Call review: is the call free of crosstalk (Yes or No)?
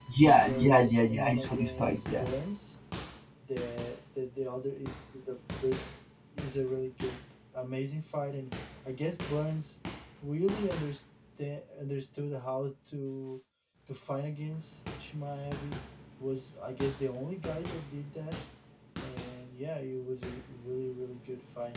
No